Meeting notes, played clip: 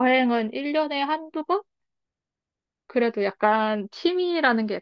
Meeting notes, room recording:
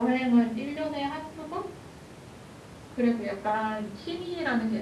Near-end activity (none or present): none